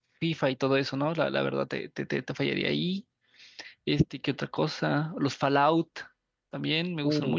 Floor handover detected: Yes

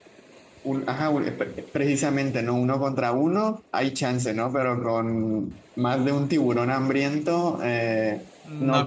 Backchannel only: No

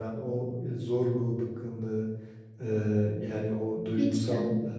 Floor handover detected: No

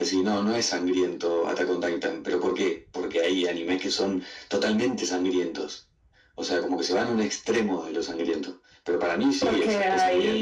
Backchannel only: No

